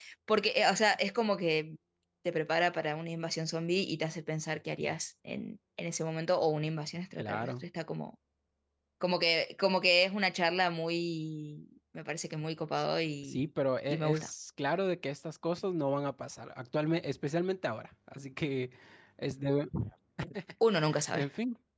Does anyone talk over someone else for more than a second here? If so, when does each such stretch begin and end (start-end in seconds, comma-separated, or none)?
none